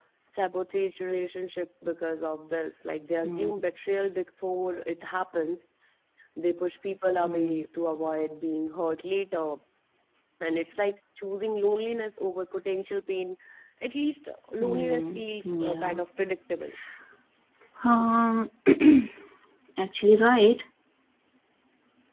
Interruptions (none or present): present